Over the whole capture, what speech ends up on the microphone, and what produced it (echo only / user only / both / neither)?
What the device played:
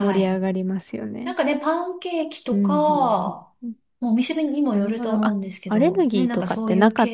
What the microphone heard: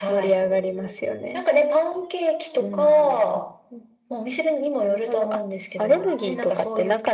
echo only